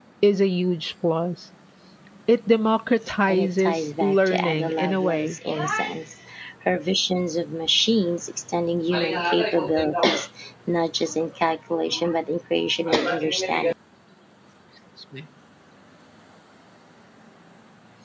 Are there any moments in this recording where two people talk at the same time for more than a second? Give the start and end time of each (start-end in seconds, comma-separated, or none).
3.3-5.3